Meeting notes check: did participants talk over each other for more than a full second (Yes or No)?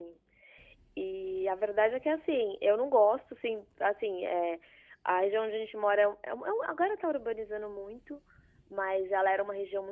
No